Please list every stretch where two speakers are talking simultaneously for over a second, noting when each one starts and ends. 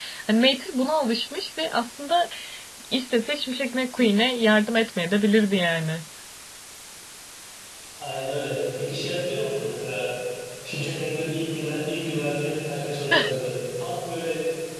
none

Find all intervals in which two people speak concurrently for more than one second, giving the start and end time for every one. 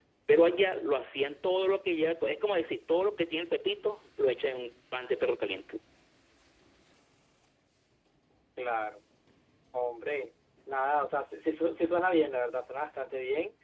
none

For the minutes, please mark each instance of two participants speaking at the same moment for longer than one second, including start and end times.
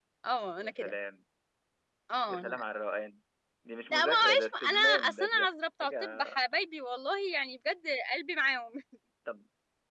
3.9-5.5

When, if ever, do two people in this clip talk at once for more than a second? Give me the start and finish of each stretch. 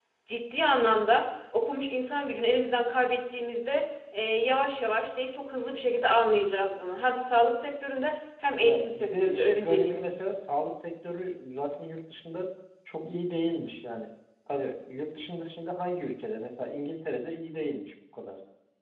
8.6-10.2

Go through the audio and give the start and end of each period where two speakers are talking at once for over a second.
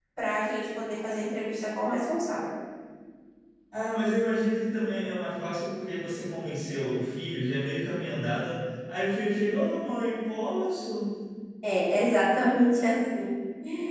none

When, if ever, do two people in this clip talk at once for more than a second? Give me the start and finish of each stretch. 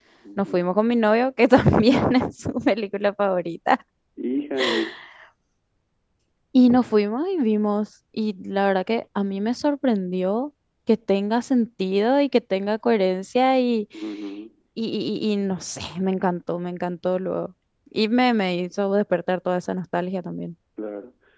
none

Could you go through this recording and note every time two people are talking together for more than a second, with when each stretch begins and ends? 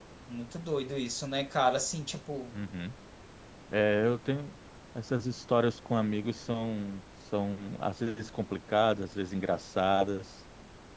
none

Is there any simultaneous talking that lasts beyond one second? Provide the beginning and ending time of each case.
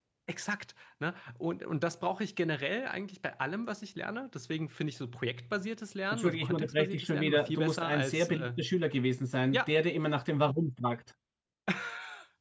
6.1-8.5

